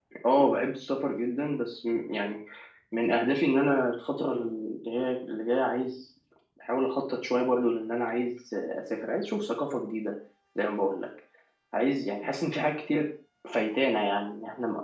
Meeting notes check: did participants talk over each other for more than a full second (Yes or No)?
No